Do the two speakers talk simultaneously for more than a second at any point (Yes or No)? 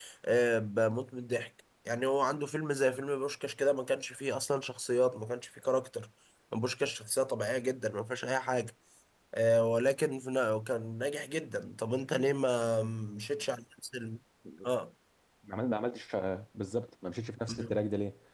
No